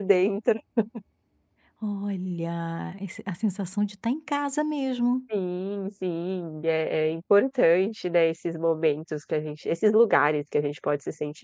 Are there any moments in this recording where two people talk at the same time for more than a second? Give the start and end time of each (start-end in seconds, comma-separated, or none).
none